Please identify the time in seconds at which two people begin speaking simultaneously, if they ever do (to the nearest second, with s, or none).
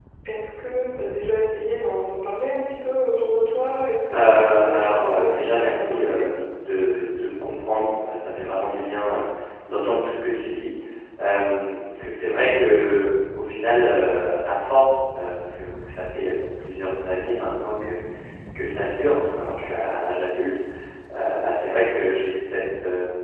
4 s